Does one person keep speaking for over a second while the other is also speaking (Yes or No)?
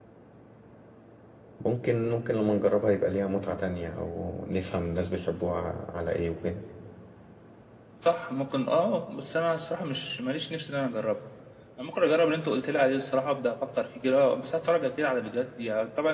No